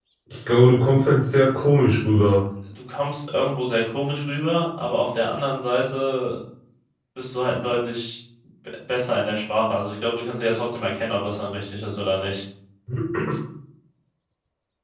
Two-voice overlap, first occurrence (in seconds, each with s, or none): none